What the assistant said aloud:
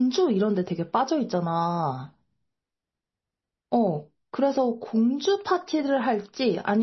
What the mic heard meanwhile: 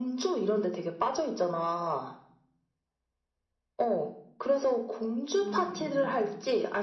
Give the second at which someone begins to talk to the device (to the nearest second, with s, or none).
5 s